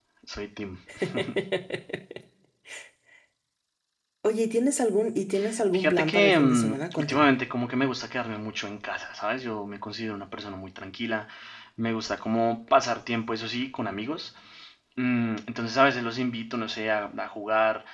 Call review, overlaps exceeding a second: present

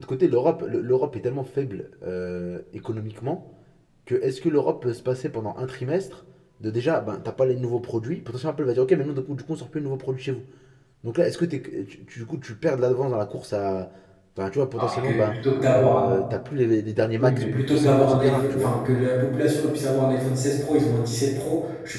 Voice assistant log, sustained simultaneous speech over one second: present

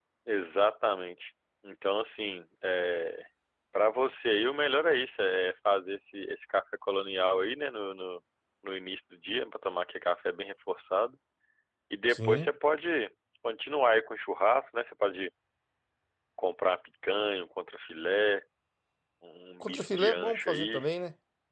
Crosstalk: present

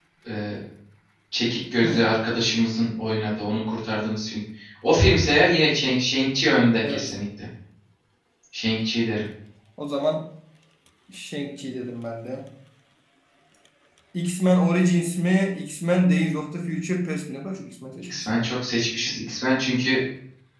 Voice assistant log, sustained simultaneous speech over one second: none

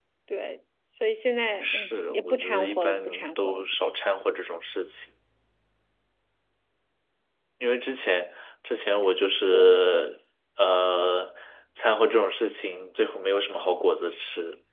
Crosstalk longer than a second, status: present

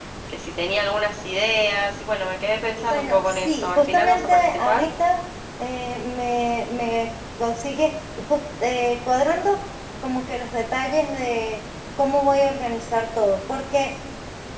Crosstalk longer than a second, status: present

